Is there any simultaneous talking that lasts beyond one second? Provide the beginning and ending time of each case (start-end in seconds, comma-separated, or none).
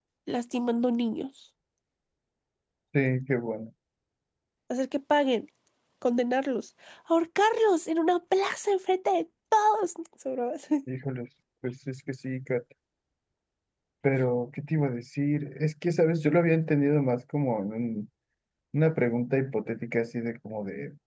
none